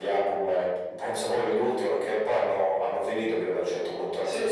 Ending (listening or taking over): taking over